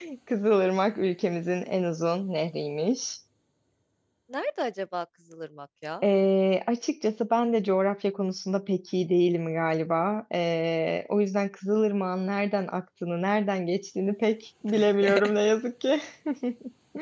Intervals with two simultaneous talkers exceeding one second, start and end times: none

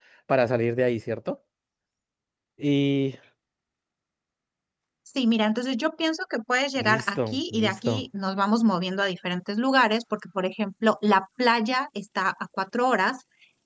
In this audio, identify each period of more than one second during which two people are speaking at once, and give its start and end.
6.8-8.0

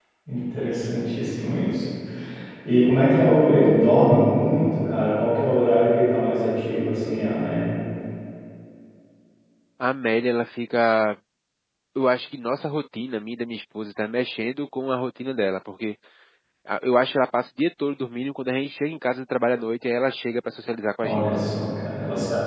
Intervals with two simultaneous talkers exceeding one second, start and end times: none

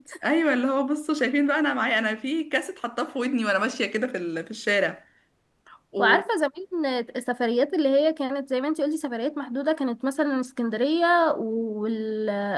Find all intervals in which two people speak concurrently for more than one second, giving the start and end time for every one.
none

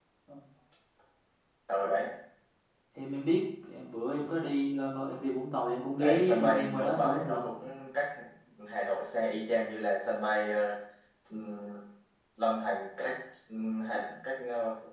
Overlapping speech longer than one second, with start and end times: 6.0-7.5

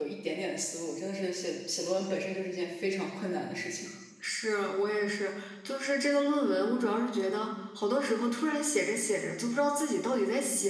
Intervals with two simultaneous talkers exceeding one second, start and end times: none

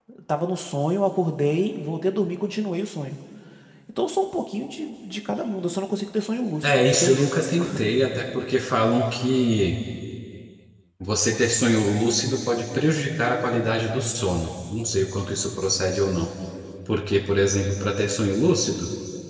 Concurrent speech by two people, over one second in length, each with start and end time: 6.6-8.0

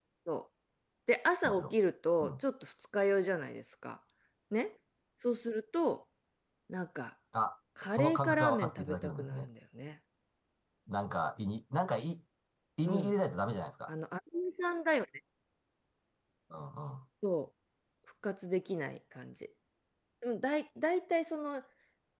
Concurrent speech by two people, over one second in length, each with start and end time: 7.8-9.5

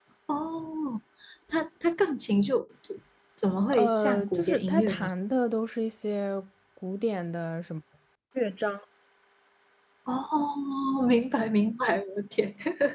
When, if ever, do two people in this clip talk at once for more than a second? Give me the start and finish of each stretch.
3.7-5.1

